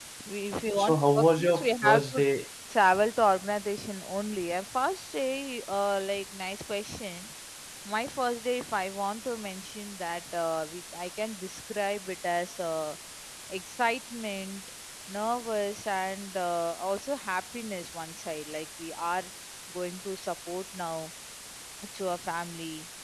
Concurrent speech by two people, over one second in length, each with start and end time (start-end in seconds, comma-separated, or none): 0.8-2.2